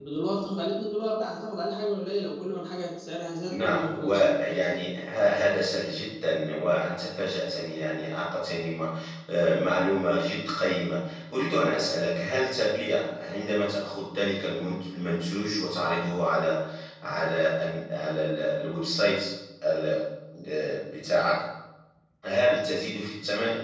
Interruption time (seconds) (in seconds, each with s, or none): 3.5 s